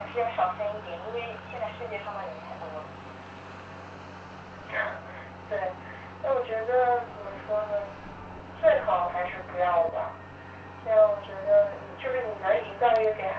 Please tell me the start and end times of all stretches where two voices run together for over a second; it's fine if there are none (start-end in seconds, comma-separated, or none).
none